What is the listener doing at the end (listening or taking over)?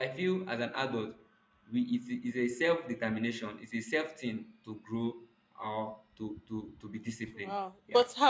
taking over